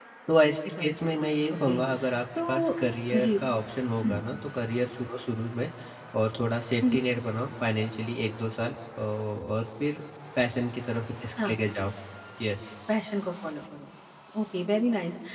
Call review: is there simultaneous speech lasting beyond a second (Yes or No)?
No